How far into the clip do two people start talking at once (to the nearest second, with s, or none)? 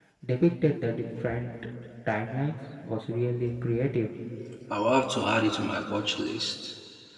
none